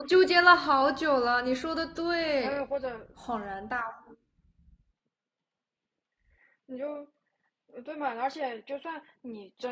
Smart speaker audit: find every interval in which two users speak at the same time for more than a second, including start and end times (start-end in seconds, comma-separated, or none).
none